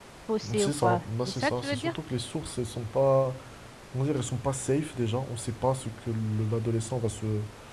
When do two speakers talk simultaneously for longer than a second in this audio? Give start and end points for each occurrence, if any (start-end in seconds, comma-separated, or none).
0.6-1.9